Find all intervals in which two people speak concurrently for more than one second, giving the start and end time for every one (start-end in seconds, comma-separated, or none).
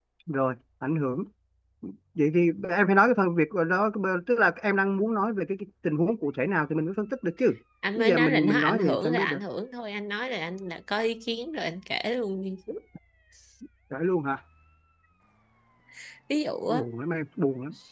8.0-9.4